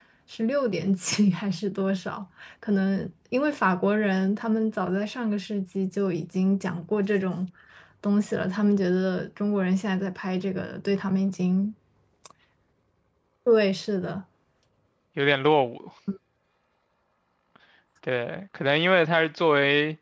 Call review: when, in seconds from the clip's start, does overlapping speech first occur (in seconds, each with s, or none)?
none